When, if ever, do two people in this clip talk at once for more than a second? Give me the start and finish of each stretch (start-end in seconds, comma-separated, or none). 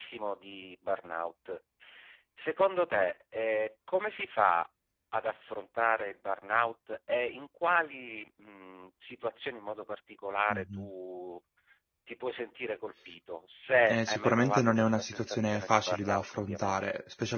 13.9-16.8